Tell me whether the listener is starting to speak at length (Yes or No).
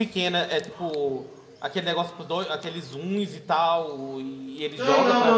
Yes